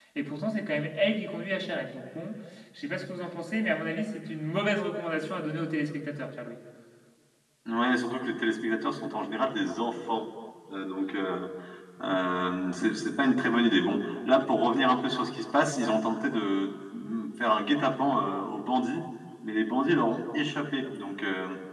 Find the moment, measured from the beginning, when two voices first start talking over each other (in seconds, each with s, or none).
none